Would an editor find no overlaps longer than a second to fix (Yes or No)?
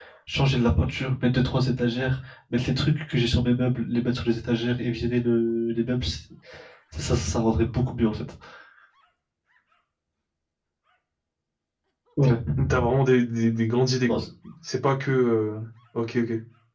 Yes